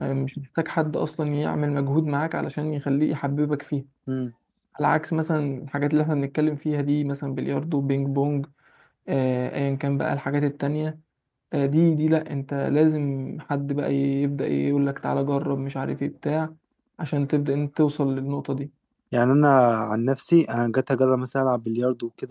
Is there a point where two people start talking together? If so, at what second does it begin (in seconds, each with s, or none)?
none